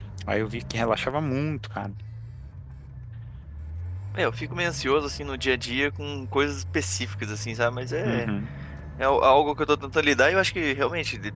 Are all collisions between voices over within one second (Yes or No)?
Yes